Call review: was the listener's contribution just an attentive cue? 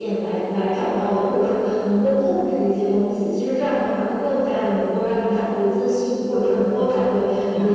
Yes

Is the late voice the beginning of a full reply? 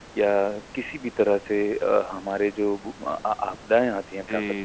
No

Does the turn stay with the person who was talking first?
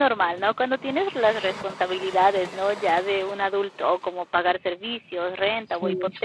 Yes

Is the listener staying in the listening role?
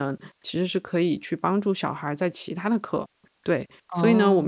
Yes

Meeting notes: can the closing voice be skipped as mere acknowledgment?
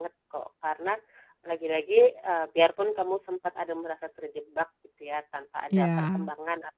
Yes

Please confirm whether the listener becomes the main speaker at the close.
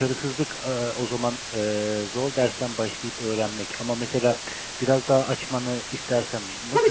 Yes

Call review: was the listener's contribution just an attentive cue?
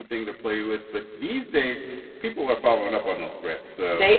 Yes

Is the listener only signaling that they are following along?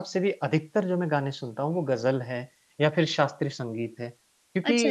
Yes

